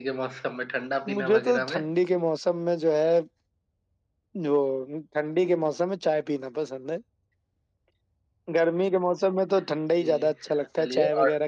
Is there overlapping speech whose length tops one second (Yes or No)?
Yes